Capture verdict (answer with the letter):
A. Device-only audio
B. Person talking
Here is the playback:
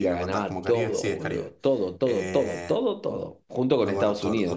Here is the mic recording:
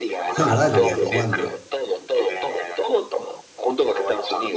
B